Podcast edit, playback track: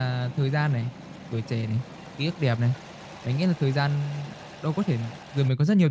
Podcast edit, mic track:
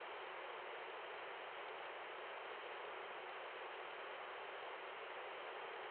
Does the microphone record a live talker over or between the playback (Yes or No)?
No